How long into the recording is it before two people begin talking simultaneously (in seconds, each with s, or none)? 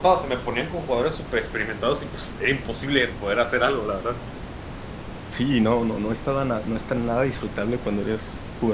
none